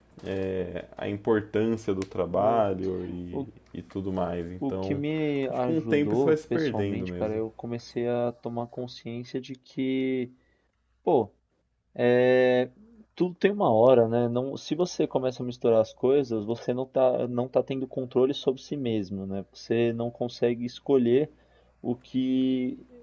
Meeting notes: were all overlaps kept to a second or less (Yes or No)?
No